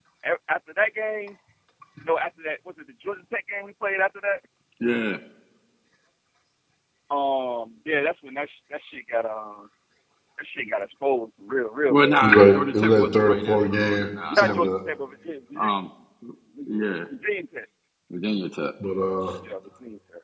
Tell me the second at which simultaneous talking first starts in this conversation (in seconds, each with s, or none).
11.9 s